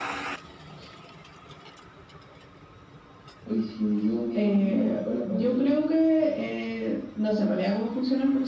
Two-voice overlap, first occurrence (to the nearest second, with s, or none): 4 s